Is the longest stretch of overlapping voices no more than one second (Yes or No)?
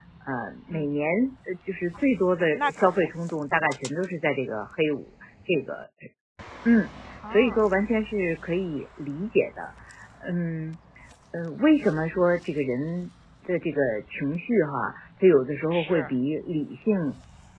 Yes